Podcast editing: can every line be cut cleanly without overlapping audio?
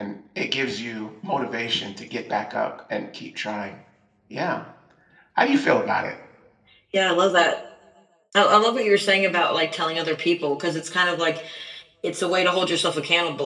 Yes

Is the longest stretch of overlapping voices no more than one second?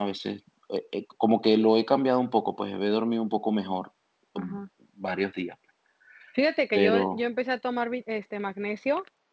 Yes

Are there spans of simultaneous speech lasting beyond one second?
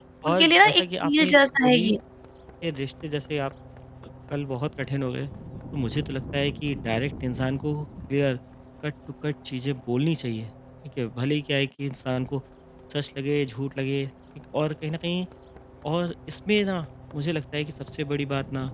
Yes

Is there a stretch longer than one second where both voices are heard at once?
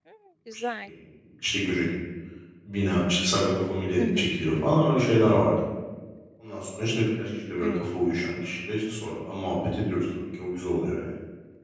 No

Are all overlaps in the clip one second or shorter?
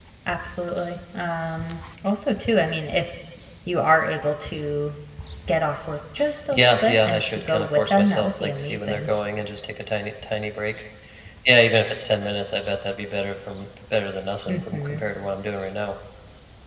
No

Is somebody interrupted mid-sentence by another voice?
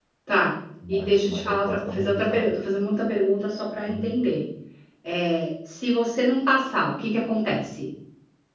Yes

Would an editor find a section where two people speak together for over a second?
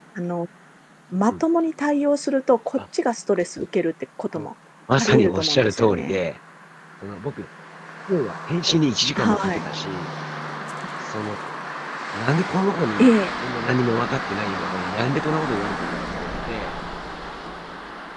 Yes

